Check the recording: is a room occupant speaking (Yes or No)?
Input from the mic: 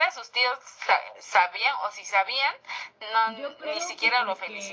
Yes